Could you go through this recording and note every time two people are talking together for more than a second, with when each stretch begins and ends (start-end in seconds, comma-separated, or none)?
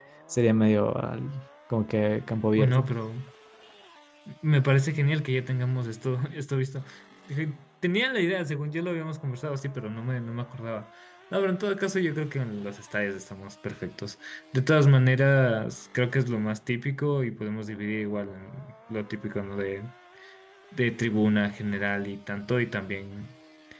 none